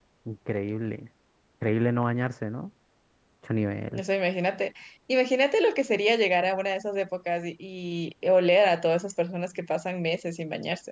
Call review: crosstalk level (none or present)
none